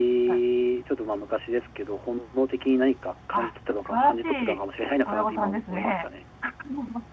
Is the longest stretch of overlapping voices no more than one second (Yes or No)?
No